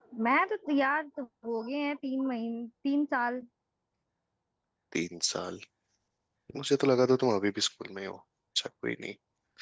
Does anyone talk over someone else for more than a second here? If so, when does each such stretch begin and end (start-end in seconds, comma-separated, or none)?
none